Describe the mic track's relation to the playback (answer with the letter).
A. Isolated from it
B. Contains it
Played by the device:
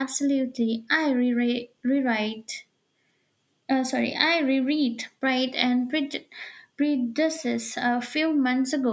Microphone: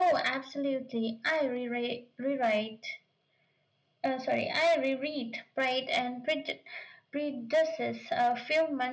B